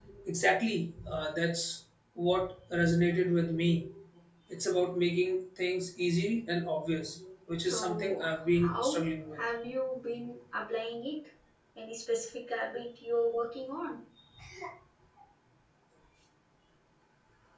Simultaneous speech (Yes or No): Yes